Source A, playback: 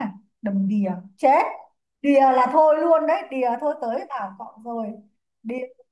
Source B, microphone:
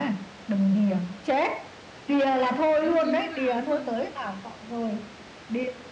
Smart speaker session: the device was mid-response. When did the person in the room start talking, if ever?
3 s

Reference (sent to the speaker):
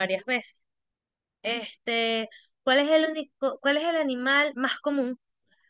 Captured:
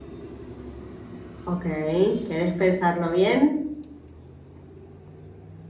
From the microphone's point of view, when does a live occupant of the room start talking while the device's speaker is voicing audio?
1 s

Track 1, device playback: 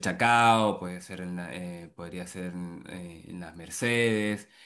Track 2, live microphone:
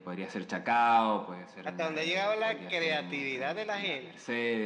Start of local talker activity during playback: 2 s

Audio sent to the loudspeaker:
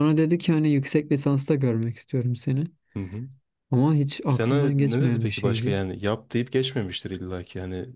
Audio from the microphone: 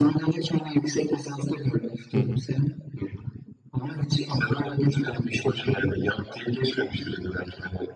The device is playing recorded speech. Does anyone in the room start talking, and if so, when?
2 s

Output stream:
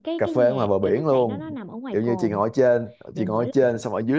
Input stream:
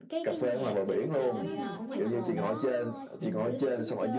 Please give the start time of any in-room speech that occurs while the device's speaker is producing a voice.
1 s

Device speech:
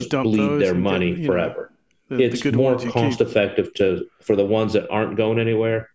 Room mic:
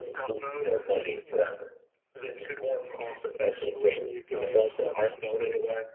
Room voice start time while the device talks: 3 s

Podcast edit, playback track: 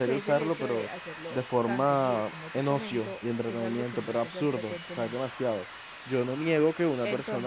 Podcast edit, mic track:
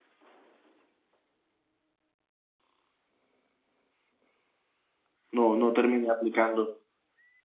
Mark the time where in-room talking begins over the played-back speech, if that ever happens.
5 s

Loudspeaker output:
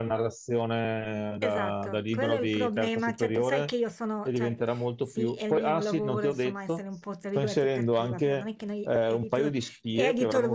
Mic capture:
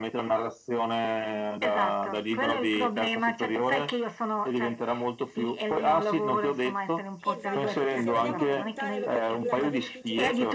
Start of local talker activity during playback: 7 s

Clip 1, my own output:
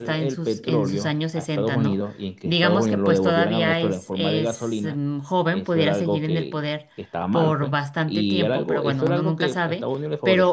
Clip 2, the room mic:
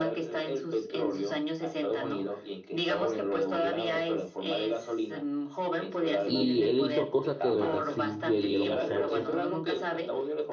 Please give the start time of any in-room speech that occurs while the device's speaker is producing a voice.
6 s

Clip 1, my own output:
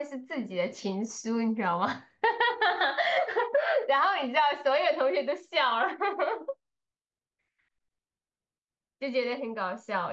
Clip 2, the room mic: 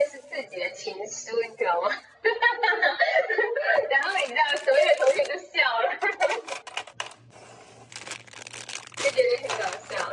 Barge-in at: none

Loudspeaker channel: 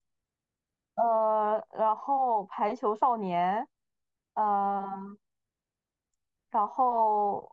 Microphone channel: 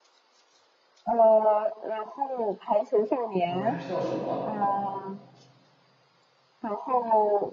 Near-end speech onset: 3 s

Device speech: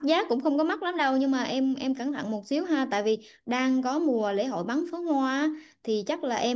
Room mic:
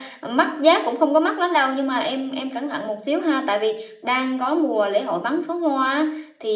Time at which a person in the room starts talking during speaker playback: none

